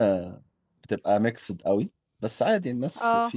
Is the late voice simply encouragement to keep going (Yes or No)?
Yes